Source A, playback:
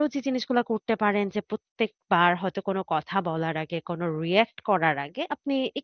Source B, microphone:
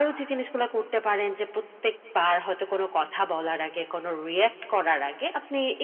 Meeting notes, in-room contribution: none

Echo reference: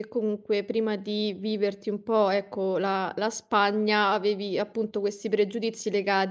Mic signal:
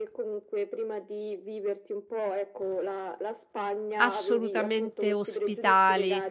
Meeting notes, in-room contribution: present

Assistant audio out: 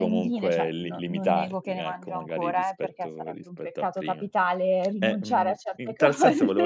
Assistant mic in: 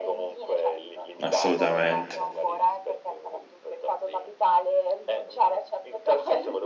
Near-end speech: present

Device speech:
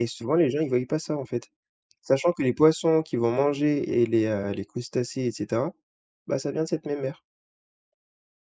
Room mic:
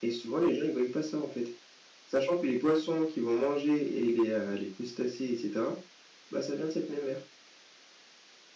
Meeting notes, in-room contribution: none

